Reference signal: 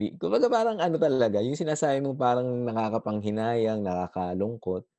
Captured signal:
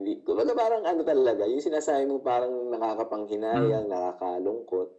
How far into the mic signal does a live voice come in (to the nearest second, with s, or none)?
4 s